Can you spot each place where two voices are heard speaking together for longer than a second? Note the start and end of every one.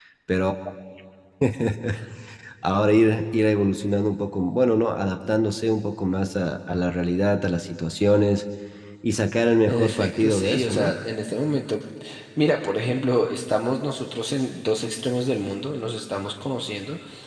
9.7-10.9

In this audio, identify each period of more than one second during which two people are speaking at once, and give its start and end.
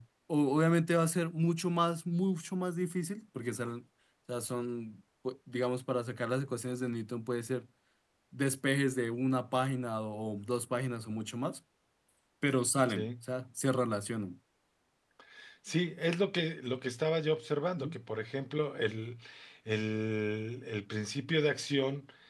none

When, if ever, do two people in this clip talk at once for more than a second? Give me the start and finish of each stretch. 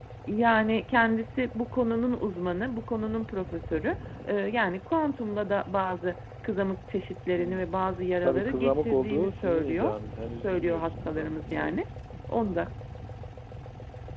8.2-9.9, 10.4-11.8

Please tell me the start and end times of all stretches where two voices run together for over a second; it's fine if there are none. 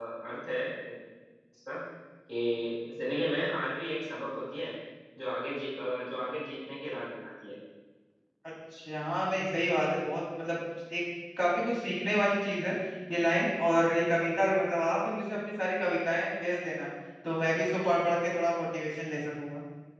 none

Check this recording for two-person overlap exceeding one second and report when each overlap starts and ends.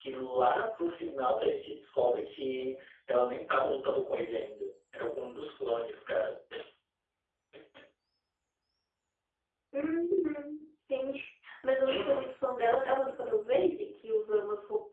none

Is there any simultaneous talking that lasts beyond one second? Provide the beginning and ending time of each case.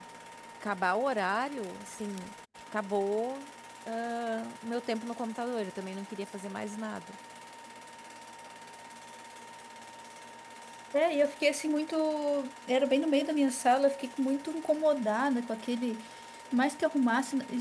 none

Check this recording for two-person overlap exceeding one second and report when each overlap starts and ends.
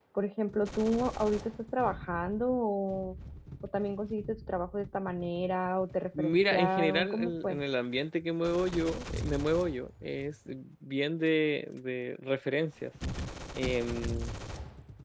6.2-7.6

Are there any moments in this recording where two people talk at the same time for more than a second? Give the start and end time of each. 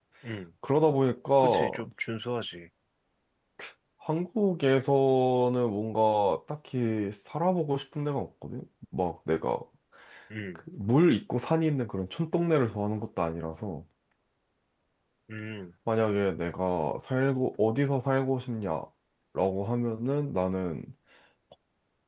none

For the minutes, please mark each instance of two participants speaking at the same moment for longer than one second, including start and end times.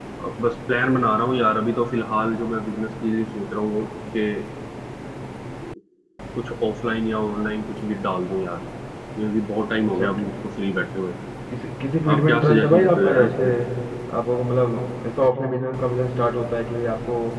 12.1-13.4

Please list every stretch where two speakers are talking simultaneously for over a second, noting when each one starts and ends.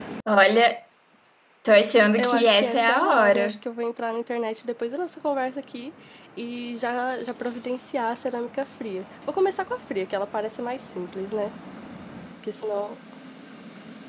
2.2-3.5

